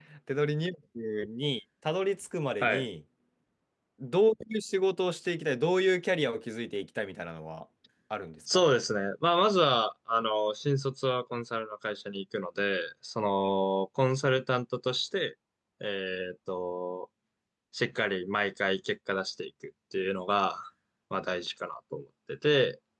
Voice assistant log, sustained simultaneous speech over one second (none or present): none